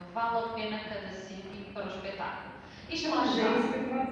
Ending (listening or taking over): taking over